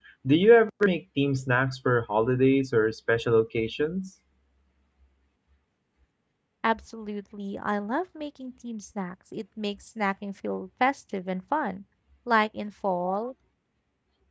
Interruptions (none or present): none